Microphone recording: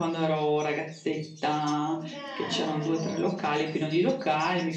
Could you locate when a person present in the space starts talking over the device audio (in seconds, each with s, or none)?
1.8 s